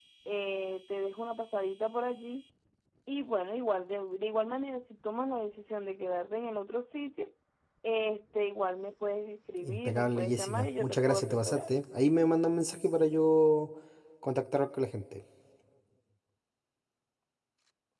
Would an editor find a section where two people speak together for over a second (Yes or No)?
Yes